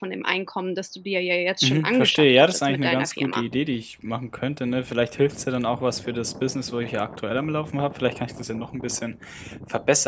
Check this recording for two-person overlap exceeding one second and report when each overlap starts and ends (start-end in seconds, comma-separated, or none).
1.6-3.4